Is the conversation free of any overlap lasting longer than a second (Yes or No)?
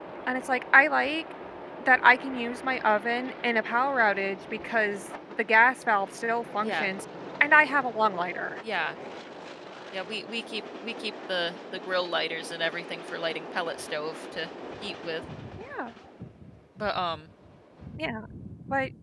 Yes